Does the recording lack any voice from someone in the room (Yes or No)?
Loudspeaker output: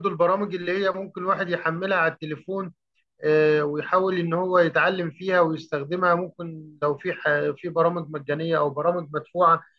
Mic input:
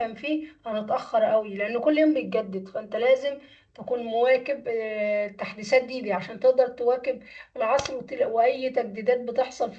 No